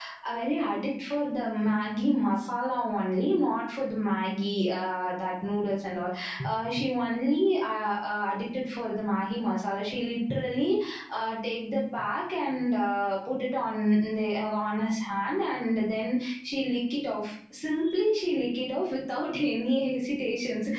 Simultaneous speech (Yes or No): No